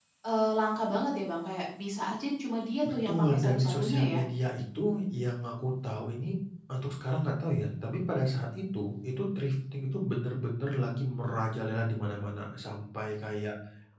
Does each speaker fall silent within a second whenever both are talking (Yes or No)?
No